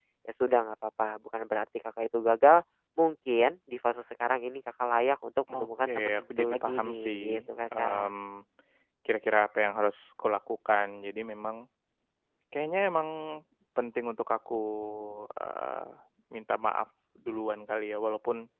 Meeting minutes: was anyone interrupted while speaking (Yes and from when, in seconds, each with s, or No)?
Yes, from 5.5 s